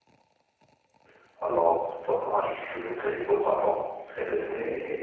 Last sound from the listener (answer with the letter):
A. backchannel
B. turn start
B